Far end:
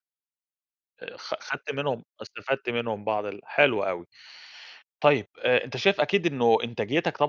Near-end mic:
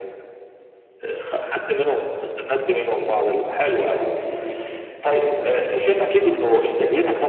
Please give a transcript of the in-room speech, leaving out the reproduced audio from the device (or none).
none